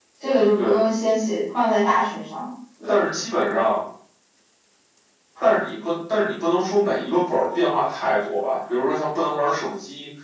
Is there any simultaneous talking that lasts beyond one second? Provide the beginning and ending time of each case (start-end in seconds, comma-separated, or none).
none